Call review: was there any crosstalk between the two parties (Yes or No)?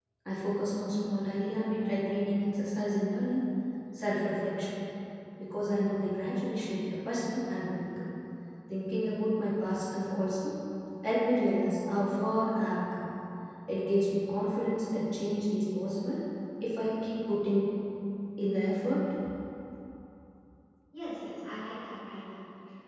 No